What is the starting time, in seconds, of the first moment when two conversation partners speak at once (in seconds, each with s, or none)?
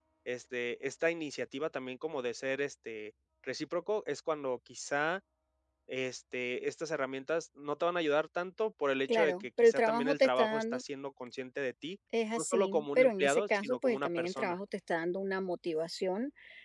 9.1 s